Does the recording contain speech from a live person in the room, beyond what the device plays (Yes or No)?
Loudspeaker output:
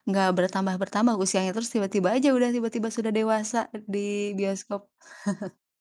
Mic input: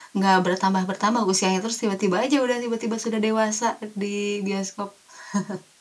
No